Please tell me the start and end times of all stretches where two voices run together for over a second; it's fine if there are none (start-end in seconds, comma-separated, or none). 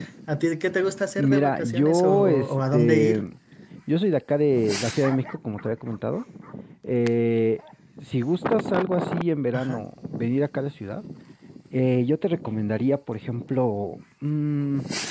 1.2-3.2